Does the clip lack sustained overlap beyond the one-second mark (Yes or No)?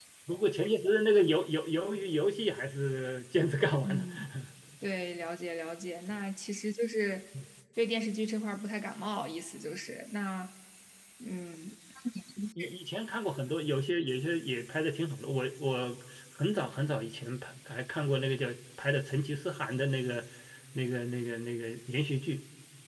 Yes